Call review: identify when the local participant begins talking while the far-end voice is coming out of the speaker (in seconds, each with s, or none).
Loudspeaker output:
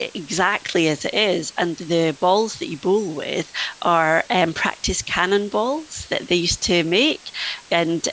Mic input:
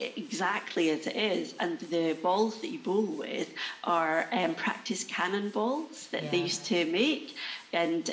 6.1 s